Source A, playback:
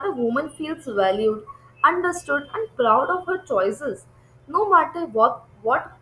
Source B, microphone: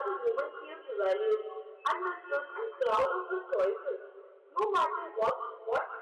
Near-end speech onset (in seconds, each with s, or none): none